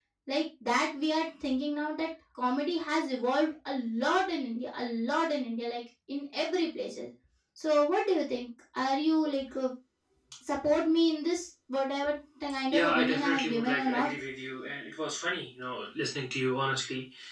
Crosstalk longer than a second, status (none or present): present